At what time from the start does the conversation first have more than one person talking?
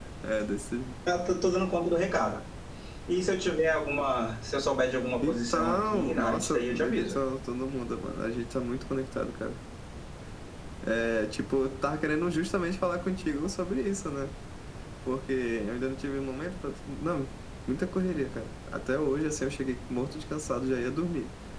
5.2 s

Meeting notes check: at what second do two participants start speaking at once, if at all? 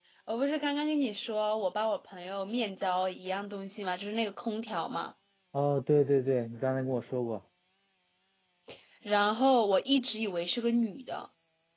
none

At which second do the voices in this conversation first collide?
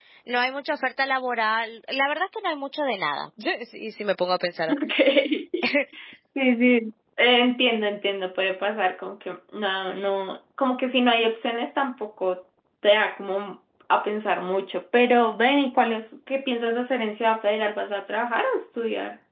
none

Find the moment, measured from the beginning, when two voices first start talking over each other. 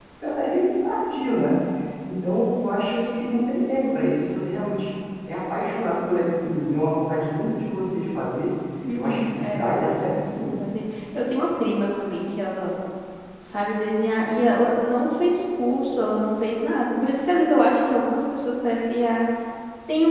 8.9 s

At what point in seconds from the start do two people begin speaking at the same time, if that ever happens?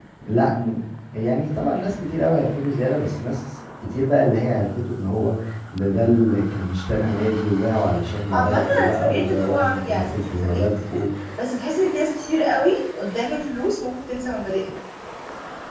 8.3 s

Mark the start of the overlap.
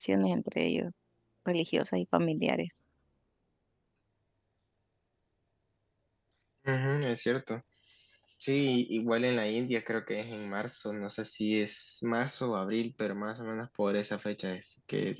none

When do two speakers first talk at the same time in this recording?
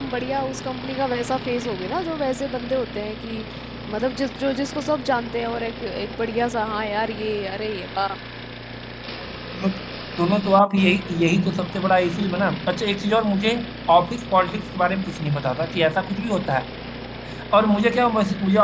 none

